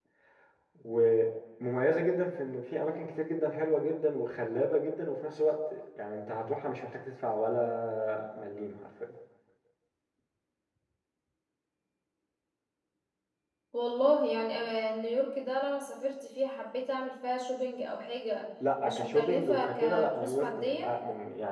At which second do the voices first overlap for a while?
18.6 s

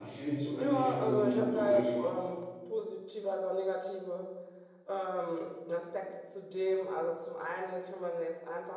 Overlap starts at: 0.6 s

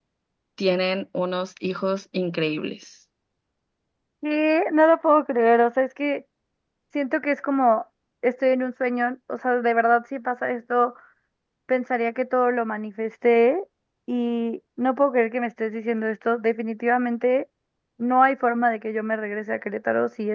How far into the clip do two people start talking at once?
none

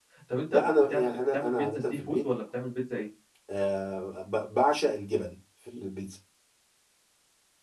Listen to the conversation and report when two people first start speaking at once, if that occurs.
0.5 s

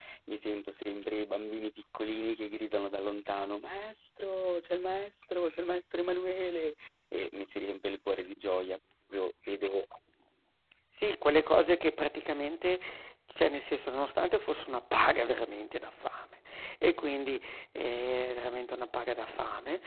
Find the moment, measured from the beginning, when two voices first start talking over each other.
none

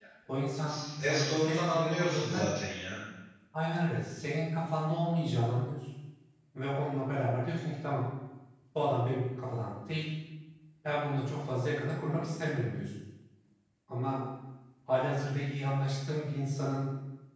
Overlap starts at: 0.7 s

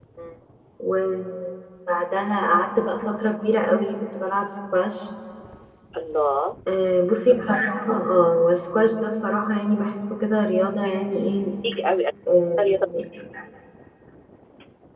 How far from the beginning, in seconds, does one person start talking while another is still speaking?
none

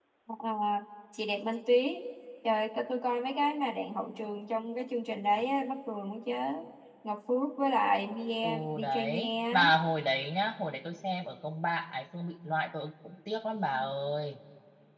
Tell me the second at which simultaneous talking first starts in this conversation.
8.4 s

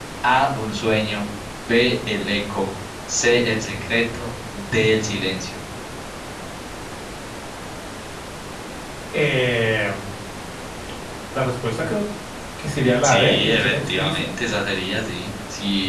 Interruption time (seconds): 13.0 s

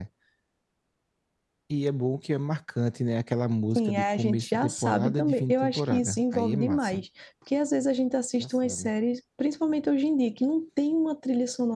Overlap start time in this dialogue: 3.8 s

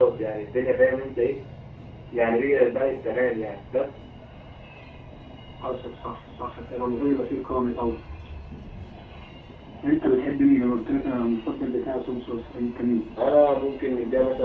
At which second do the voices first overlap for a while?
none

